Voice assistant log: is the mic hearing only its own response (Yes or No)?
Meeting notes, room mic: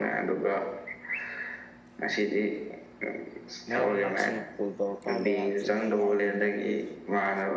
No